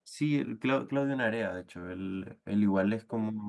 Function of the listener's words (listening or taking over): listening